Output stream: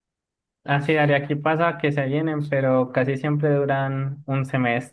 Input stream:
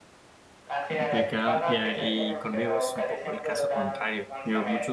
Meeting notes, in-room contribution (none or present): present